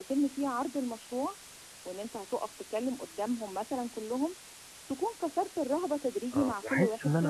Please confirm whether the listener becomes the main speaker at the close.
Yes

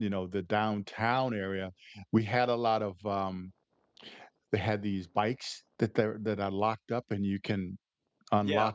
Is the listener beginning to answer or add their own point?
Yes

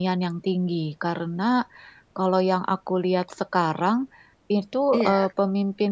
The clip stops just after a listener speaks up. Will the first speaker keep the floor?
Yes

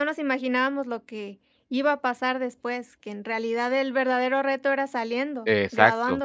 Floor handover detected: Yes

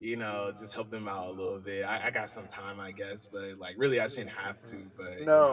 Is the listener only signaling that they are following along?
No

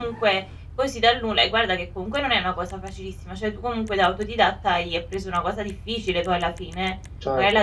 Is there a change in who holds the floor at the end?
No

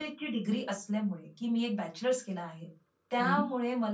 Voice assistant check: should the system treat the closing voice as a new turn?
No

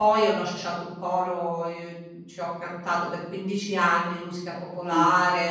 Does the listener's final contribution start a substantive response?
No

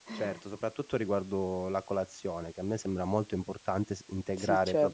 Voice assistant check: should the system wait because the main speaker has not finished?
Yes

